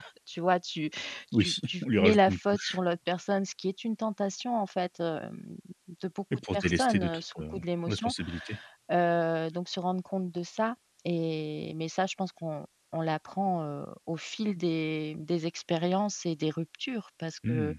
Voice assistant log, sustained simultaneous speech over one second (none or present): present